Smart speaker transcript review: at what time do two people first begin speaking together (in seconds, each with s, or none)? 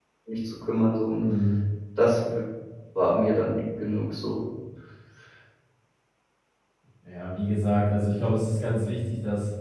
none